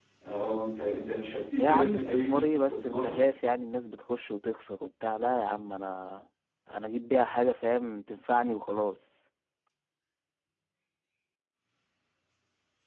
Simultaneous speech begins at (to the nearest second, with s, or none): 2 s